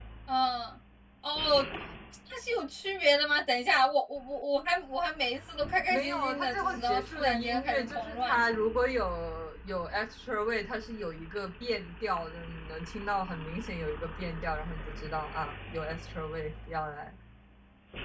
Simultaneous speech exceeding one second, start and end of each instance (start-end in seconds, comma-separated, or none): 5.9-8.4